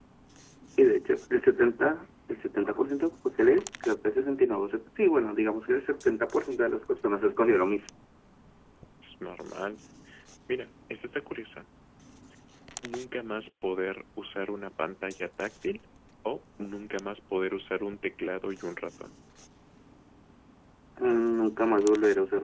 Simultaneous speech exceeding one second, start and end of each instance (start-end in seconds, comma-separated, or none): none